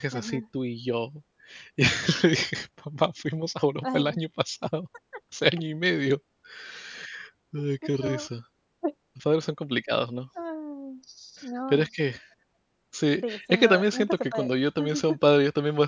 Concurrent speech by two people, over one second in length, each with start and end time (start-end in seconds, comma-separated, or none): 13.3-14.5